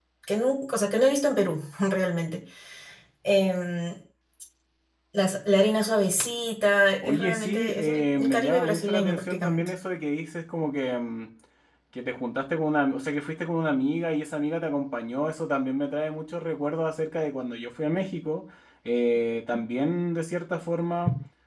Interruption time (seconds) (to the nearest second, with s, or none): 7 s